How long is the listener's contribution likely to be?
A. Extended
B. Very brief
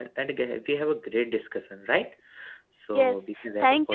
A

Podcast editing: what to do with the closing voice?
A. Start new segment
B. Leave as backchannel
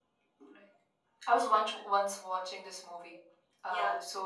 B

